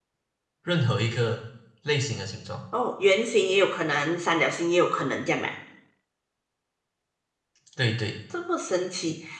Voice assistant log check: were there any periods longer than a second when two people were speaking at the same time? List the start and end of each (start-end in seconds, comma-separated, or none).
none